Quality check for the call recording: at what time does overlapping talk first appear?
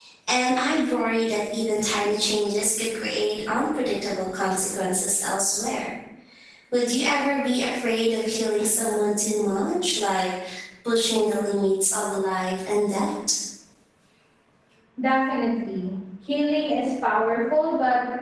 none

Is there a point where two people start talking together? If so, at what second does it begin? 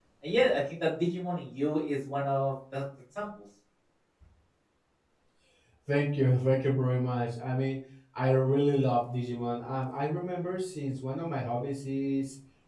none

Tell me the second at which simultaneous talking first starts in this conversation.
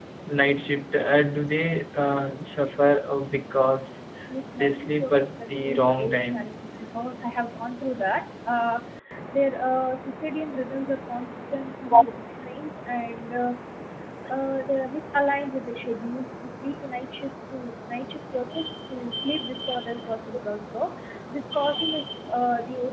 4.6 s

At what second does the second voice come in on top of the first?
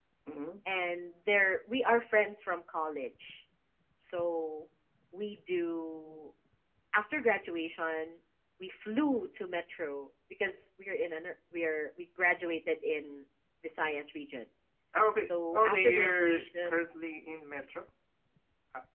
15.2 s

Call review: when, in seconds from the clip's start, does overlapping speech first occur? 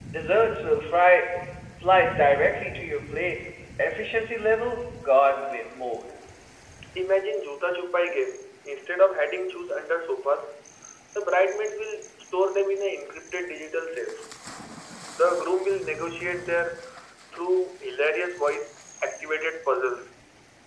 none

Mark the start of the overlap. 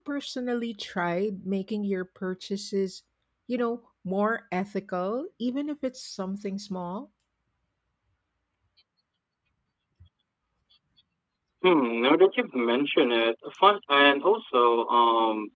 none

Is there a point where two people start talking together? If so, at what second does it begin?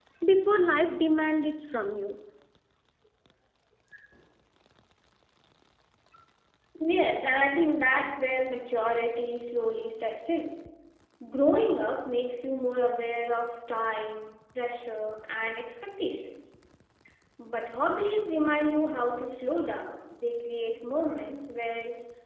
none

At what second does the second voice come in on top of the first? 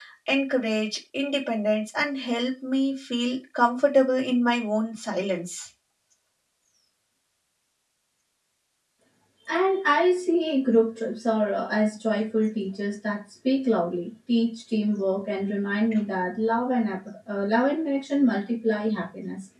none

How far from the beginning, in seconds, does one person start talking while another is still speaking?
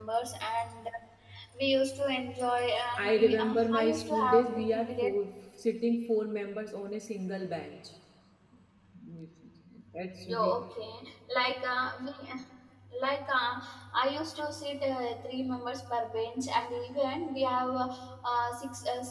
3.0 s

